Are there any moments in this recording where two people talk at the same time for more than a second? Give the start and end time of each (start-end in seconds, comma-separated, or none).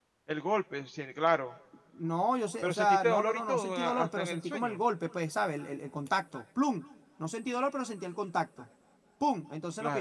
2.6-4.8